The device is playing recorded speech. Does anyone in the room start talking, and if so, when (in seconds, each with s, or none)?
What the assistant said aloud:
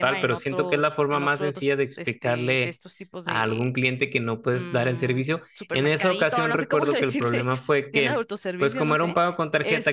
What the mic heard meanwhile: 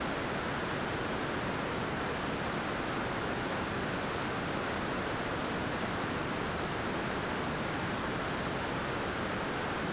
none